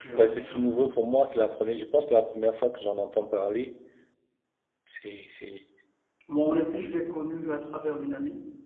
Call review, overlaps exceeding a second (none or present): none